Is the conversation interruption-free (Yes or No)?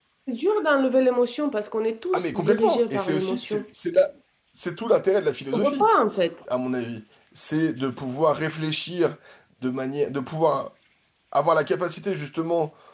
No